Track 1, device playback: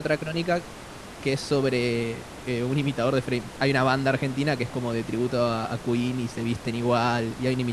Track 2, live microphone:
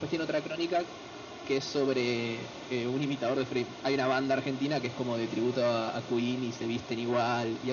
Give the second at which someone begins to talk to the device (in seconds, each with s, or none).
none